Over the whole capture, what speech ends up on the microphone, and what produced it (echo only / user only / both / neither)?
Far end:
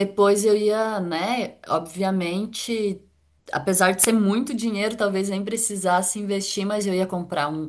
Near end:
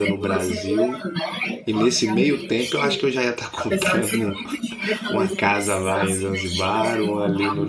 both